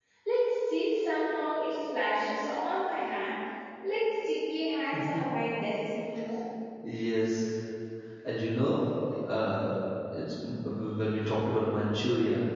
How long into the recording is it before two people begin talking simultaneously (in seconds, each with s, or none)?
none